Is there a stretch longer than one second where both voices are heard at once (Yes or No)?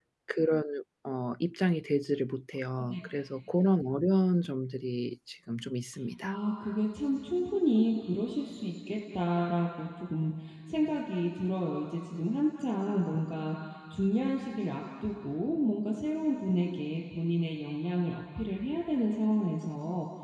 No